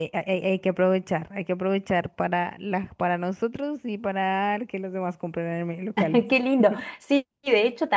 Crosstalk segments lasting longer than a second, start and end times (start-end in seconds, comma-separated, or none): none